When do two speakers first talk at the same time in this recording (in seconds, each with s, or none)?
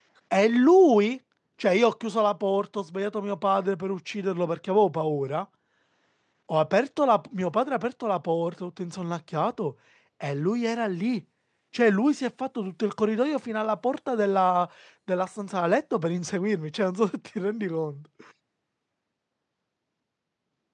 none